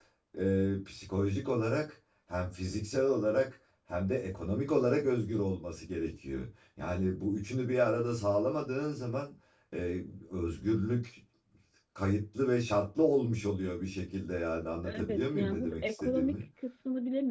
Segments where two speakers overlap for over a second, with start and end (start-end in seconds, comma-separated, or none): 14.8-16.4